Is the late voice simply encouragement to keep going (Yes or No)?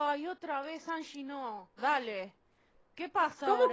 No